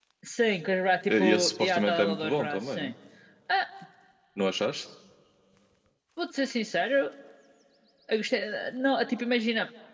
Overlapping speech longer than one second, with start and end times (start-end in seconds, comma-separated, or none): 1.1-2.9